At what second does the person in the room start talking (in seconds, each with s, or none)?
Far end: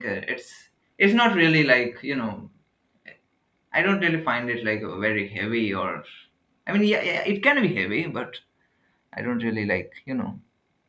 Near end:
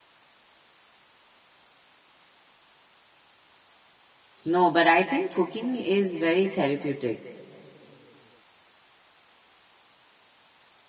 4.4 s